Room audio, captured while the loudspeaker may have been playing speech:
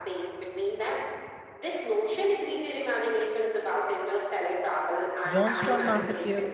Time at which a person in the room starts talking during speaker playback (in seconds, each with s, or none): 5.2 s